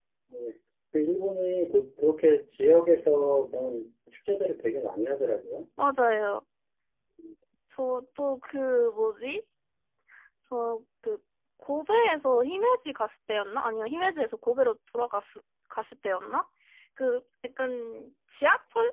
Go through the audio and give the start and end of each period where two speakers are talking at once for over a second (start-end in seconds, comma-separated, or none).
none